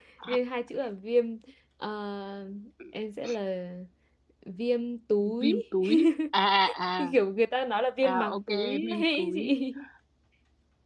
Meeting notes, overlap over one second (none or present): present